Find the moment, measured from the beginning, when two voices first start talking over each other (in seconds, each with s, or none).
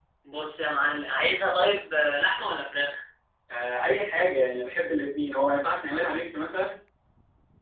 none